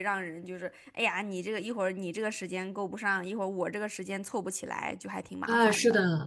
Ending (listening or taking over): taking over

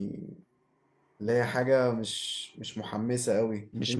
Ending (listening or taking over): listening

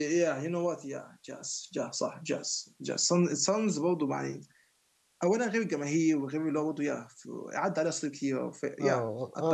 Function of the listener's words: taking over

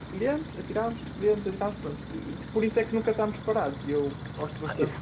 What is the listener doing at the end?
taking over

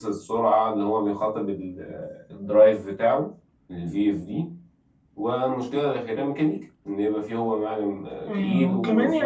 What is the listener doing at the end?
taking over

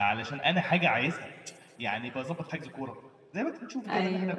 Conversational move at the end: listening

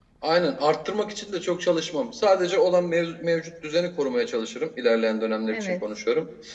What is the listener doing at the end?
listening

